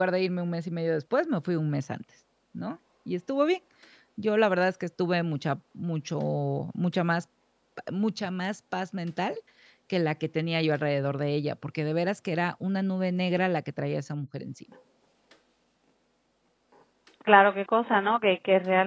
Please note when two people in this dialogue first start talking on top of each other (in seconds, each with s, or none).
none